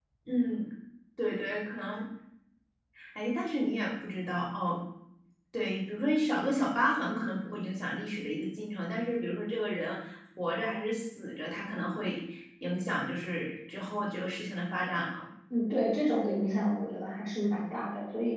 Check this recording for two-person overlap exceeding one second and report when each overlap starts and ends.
none

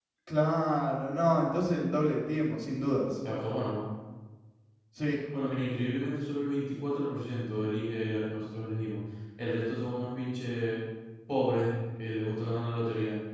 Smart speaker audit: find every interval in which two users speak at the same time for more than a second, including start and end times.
none

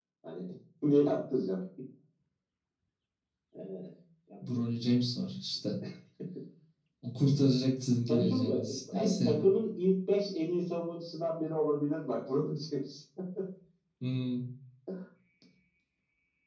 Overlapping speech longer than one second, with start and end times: 8.1-9.4

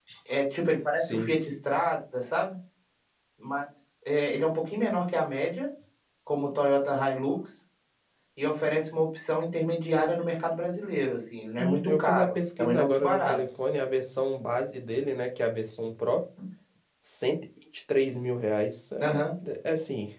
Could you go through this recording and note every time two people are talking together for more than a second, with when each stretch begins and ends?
11.6-13.4

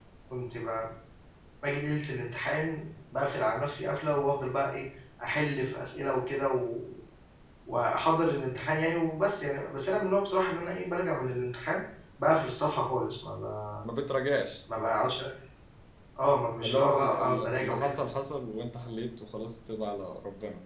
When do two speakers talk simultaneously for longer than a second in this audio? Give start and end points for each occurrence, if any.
16.6-17.9

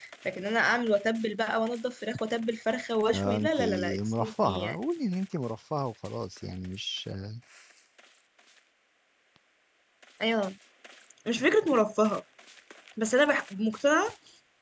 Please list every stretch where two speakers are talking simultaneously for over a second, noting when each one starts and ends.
3.1-4.8

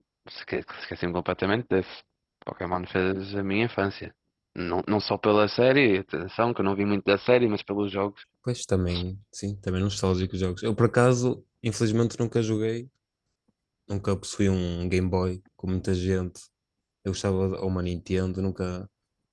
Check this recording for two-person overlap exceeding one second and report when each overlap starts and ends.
none

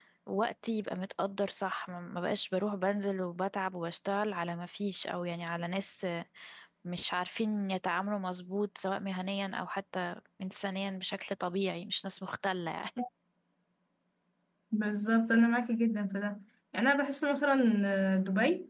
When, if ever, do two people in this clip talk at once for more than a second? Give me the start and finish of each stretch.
none

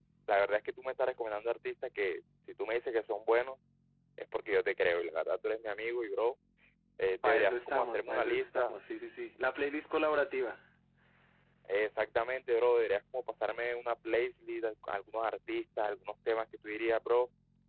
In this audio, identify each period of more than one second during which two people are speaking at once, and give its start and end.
7.2-8.7

